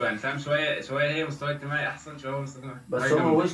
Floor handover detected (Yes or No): Yes